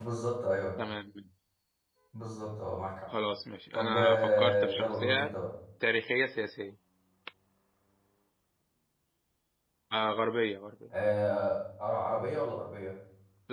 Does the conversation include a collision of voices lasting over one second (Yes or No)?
Yes